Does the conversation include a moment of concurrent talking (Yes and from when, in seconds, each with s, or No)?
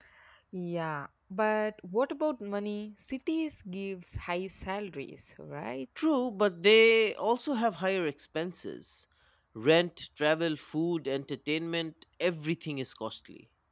No